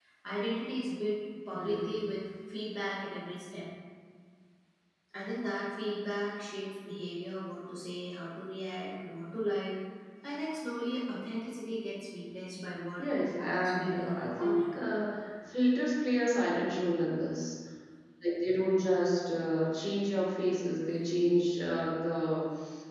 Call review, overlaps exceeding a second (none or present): present